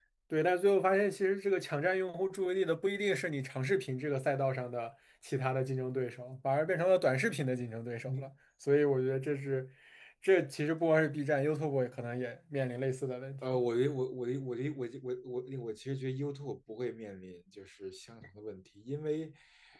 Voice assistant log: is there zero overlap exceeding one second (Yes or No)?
Yes